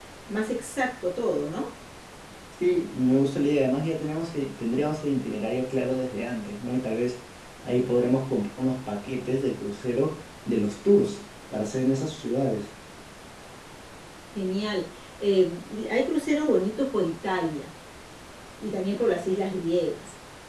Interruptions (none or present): none